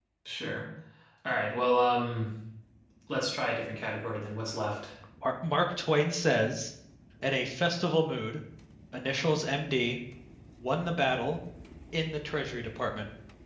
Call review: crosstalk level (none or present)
none